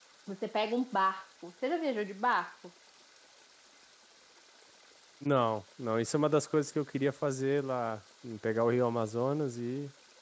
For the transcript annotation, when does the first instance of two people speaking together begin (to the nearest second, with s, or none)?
none